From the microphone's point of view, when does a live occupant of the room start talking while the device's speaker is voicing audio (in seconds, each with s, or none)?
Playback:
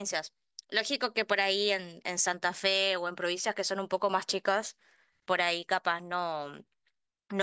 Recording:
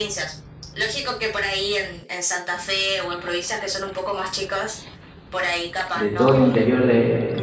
5.9 s